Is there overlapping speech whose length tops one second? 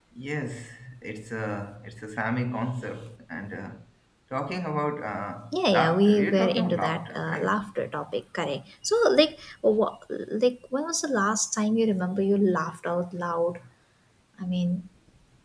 Yes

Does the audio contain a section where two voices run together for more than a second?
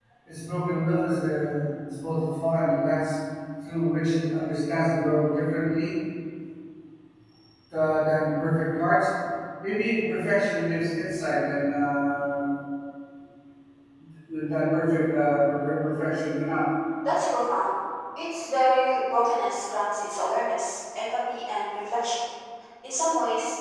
No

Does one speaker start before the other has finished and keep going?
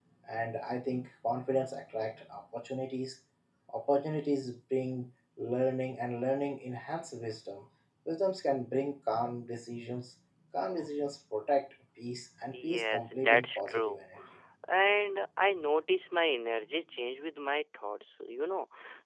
Yes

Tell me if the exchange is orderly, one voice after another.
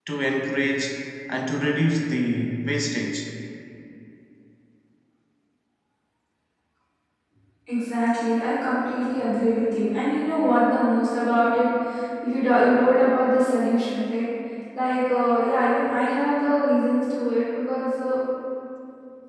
Yes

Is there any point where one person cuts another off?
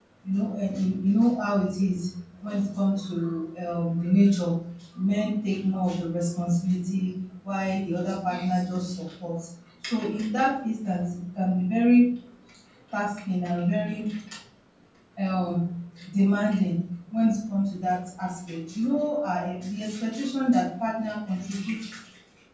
No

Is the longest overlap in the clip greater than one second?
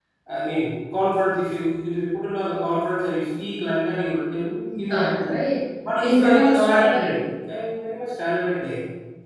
Yes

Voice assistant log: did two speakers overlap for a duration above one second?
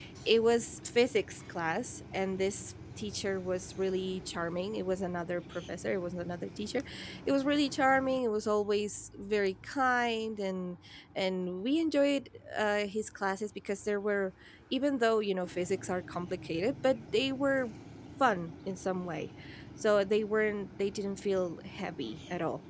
No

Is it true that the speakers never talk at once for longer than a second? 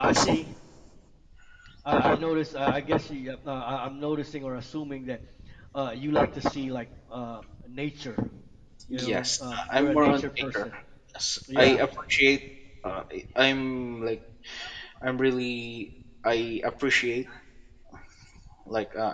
No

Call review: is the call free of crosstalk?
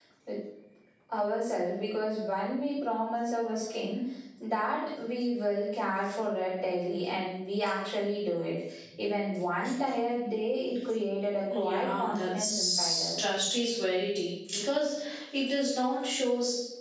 No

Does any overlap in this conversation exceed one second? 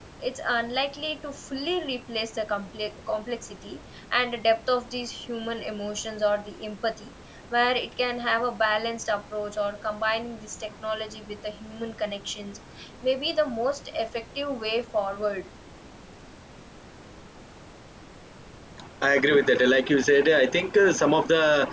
No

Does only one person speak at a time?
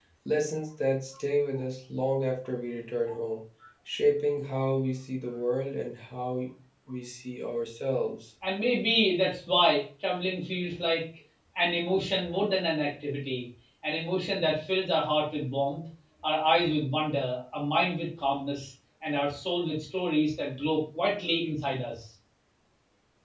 Yes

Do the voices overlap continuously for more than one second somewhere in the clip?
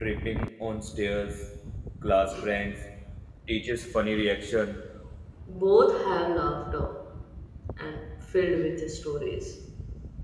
No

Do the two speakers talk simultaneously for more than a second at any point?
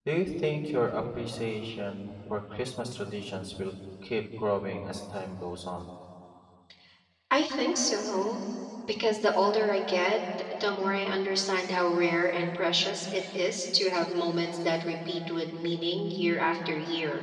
No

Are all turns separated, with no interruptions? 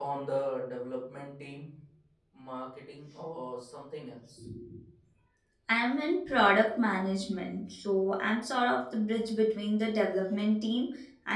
Yes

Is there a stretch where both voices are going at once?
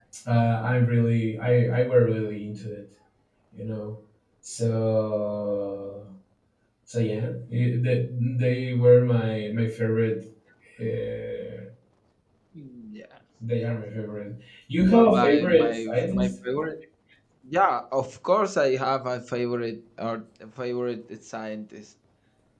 Yes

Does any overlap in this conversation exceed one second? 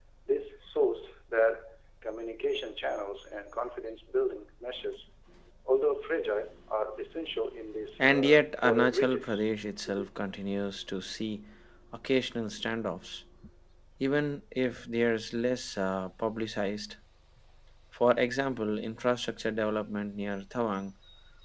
Yes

